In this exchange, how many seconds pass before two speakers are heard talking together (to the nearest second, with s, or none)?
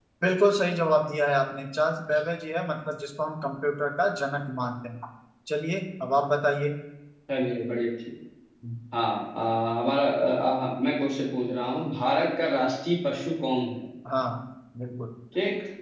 none